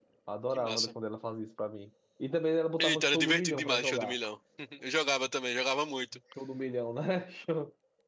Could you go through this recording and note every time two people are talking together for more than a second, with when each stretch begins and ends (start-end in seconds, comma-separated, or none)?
2.8-4.2